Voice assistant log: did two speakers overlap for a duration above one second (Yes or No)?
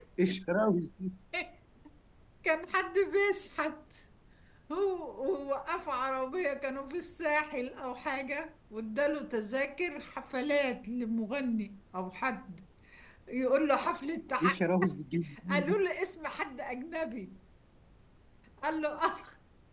No